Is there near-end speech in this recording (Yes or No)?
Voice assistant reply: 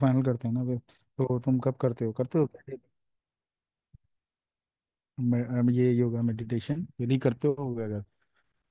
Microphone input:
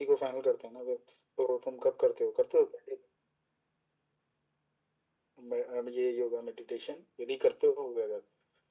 No